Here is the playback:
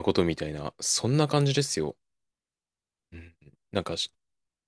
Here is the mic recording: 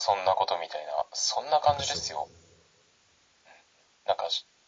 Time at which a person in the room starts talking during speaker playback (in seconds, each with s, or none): 1.6 s